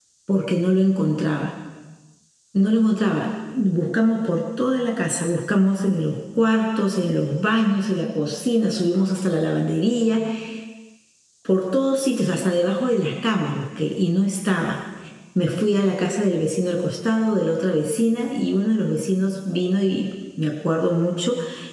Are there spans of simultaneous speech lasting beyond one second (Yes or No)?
No